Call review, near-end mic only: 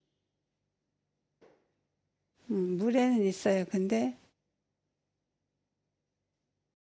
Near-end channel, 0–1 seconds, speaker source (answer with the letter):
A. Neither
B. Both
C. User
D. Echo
A